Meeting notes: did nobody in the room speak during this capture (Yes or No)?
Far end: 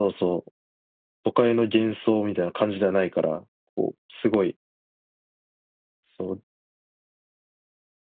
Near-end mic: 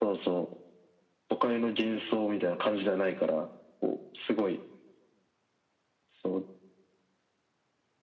Yes